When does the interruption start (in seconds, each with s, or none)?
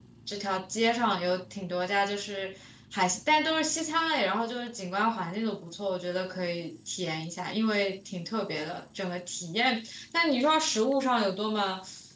none